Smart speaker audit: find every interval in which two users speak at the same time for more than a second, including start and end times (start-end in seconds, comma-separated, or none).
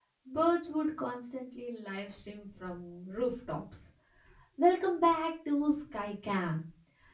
none